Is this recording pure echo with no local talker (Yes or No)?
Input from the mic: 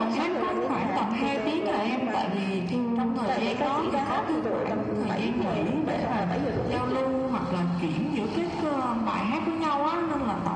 Yes